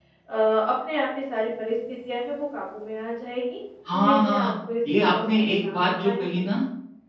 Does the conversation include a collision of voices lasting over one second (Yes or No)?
Yes